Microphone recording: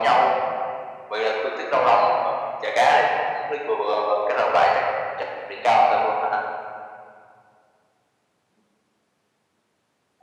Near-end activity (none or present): none